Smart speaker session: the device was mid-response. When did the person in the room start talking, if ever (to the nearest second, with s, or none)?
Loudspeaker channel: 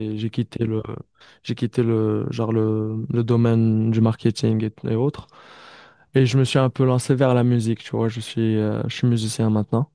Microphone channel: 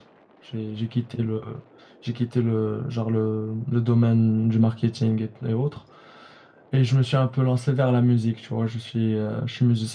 none